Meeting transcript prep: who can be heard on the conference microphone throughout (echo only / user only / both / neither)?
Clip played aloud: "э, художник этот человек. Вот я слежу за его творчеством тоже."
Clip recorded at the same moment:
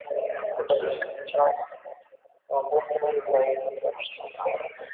both